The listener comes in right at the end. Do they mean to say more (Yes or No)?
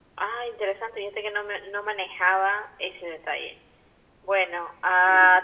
No